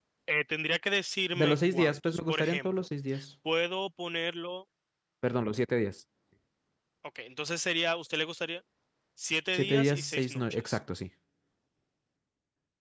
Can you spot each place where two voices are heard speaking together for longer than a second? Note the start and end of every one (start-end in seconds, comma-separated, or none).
1.4-2.9, 9.5-10.8